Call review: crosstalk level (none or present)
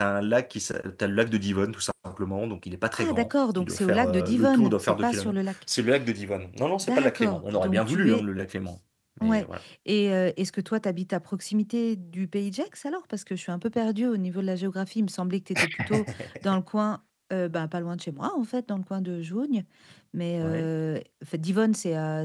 present